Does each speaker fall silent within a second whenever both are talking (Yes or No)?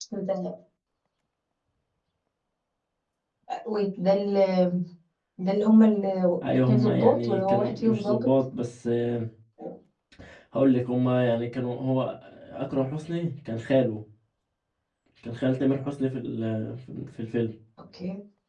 No